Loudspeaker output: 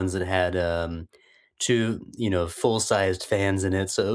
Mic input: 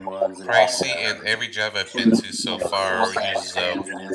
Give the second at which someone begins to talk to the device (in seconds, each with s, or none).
0.4 s